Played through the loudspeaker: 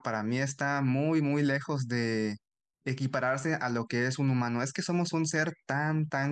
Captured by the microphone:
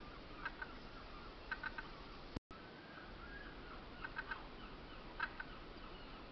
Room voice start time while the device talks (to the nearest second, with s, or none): none